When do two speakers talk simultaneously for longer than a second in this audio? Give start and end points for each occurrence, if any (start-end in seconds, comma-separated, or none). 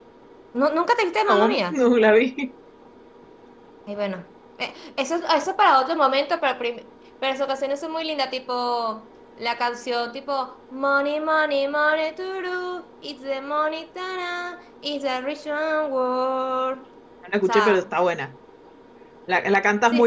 none